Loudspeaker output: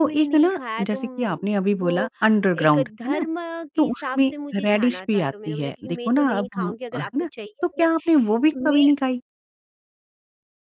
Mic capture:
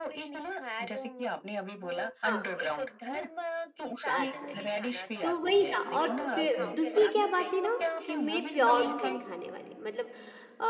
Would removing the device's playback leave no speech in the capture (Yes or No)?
No